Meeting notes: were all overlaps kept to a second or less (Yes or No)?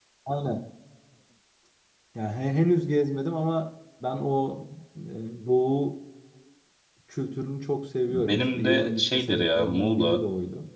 No